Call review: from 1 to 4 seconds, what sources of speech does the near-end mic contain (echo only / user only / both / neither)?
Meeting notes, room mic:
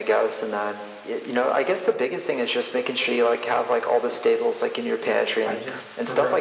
echo only